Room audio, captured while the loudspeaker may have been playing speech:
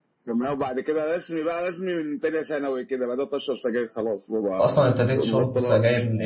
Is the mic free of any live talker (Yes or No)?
No